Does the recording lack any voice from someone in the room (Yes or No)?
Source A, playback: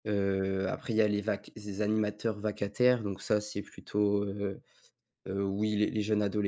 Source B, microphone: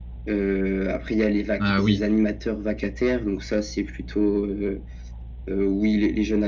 No